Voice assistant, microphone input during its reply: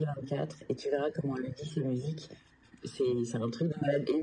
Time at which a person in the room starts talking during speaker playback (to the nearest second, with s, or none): none